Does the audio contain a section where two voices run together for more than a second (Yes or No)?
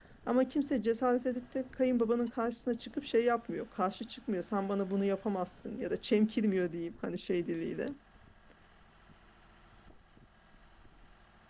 No